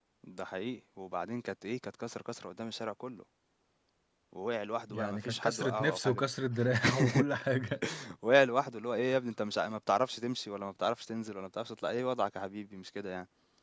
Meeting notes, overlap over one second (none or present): present